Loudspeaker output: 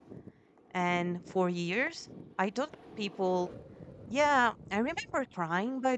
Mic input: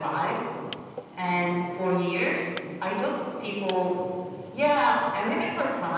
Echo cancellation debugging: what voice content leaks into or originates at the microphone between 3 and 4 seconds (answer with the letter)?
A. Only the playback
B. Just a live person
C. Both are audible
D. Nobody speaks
A